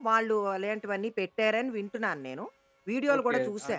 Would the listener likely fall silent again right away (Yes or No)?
No